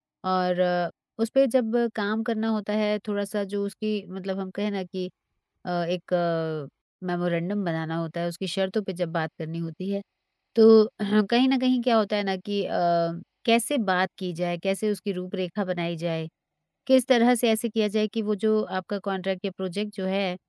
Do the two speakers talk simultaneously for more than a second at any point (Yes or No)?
No